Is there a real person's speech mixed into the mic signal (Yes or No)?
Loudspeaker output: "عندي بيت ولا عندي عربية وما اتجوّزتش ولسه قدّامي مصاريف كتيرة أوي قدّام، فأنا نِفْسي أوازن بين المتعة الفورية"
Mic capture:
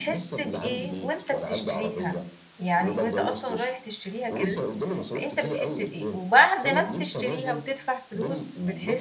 Yes